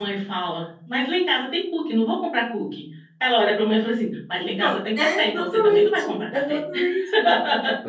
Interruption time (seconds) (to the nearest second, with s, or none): 5 s